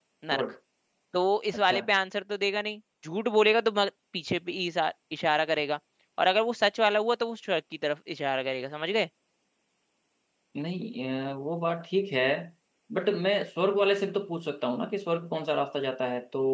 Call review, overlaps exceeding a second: none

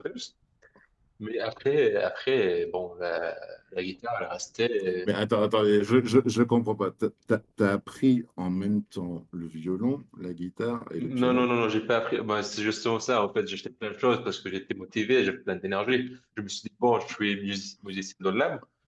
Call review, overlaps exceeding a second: none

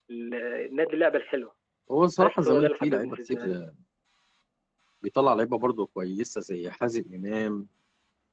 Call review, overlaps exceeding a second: present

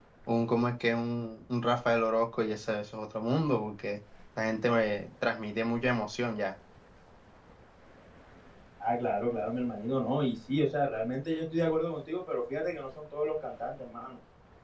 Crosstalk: none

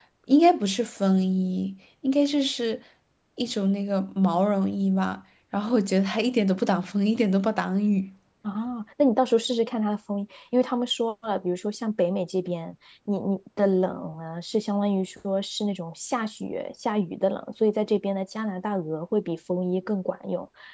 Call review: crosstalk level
none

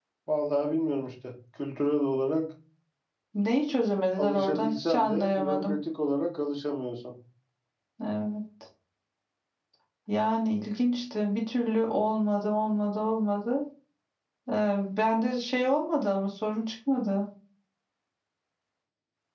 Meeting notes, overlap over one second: present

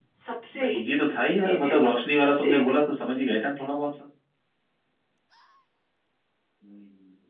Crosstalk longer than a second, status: present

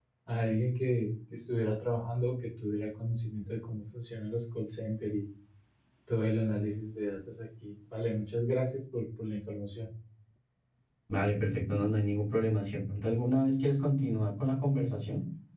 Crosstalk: none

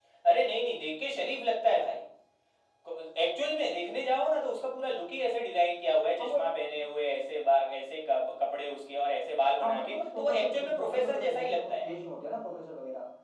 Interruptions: present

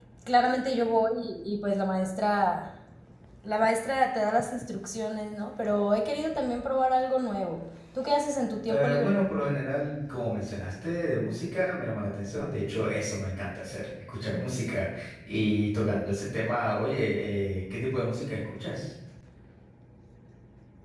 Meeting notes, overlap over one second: none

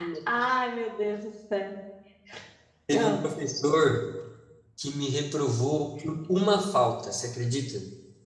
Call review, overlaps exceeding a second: none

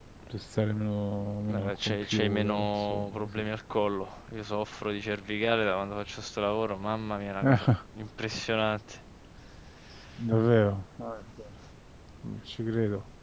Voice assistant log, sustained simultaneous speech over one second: present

